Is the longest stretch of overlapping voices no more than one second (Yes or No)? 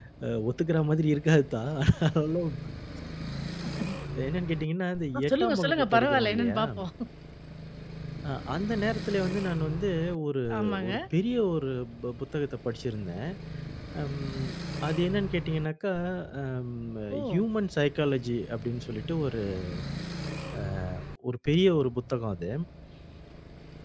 No